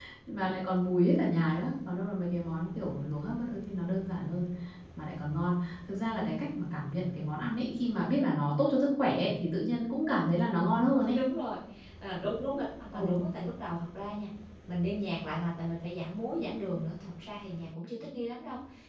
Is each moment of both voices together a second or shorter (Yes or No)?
Yes